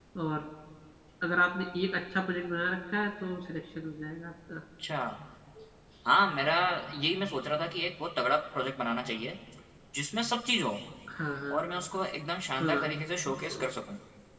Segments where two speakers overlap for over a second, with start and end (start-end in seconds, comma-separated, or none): none